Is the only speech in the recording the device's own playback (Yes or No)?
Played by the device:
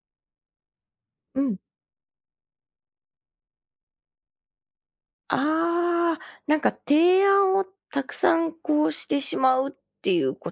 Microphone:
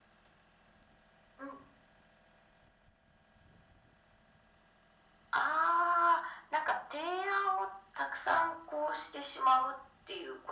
Yes